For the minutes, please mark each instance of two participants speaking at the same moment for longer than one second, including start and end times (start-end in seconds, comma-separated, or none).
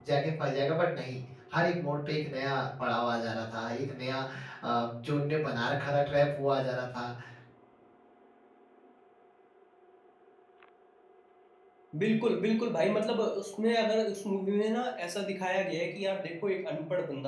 none